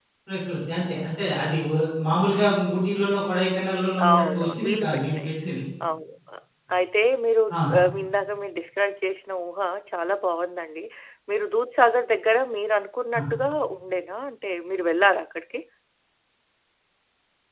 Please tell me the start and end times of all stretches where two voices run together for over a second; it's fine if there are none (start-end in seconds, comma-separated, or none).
4.1-5.3